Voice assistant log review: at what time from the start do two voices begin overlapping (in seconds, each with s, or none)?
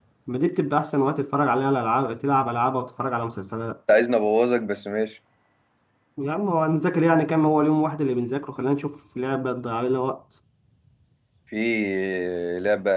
none